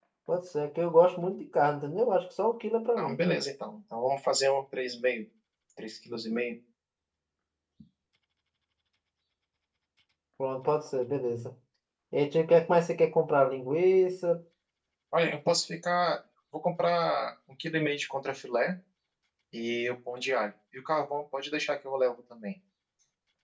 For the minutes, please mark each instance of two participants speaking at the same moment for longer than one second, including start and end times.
none

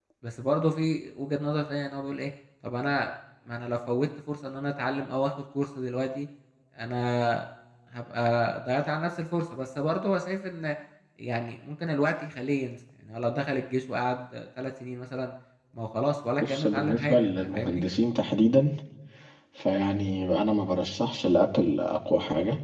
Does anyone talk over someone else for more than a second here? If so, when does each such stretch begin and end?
16.4-17.9

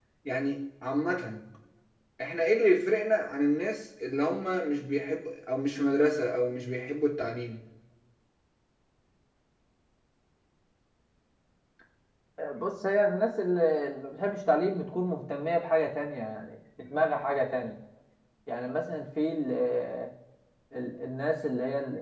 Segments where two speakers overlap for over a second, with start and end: none

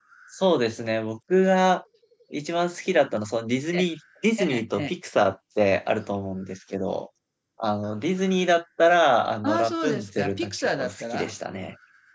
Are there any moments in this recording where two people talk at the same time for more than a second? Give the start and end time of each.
9.4-11.3

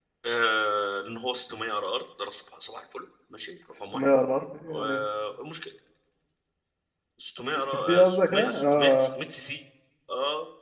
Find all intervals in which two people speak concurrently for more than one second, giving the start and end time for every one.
7.9-9.1

